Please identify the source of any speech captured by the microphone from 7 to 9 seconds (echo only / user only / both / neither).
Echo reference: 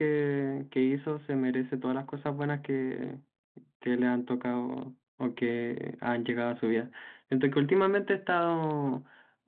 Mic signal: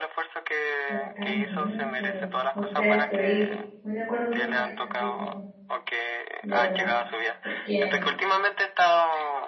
both